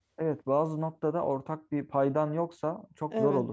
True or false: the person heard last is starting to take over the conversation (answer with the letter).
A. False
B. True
A